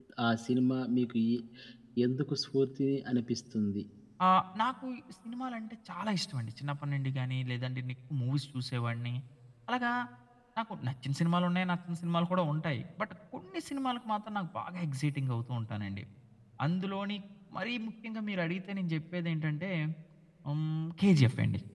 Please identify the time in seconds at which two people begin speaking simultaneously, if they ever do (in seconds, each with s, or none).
none